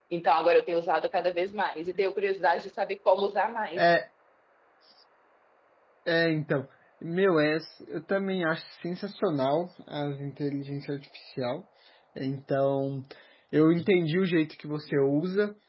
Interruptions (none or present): none